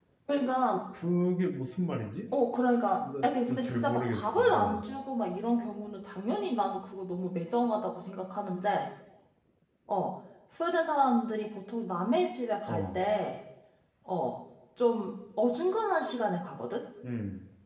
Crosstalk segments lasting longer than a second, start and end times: 3.0-4.8

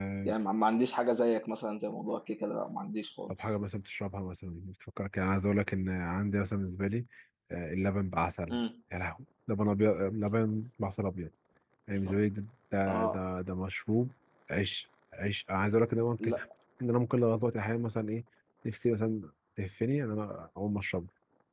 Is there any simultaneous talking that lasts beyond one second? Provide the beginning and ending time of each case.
none

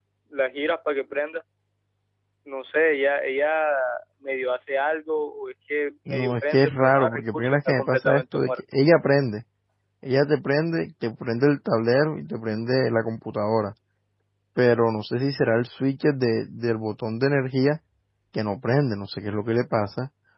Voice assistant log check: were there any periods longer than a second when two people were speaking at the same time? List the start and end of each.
6.1-8.5

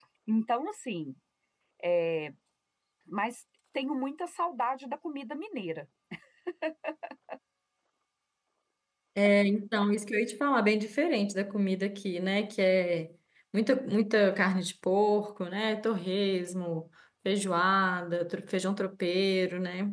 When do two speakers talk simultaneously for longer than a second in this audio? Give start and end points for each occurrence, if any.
none

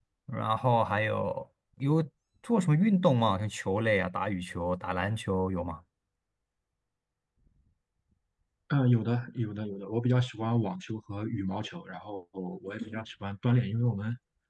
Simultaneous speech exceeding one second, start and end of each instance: none

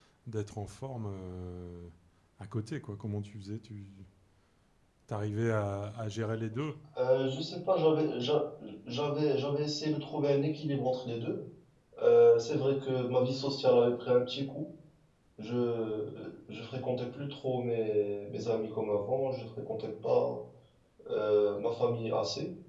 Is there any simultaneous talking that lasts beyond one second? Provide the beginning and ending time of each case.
none

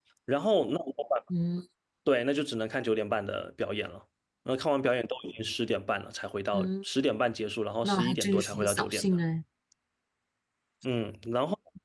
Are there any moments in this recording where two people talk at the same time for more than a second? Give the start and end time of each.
7.8-9.2

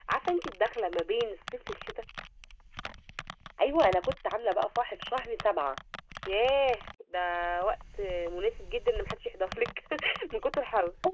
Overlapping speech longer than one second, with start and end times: none

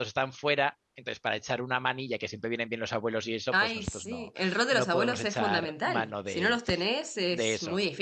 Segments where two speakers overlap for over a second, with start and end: 3.5-6.6

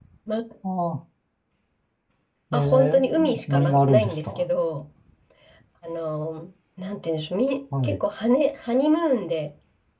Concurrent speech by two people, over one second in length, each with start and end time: 2.5-4.4

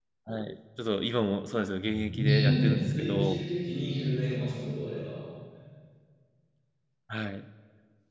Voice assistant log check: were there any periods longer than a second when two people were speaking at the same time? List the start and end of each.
2.1-3.5

